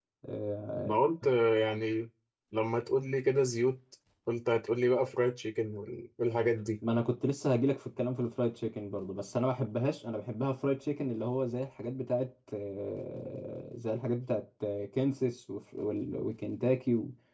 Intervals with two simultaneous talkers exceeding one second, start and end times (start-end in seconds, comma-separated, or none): none